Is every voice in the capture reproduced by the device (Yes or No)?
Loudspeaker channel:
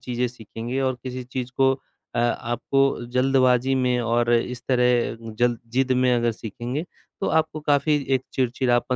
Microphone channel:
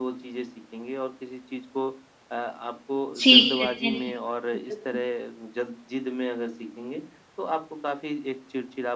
No